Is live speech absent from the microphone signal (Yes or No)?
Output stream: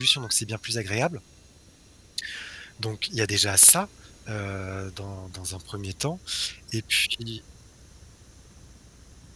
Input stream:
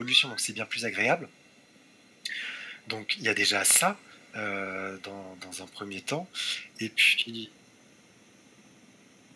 Yes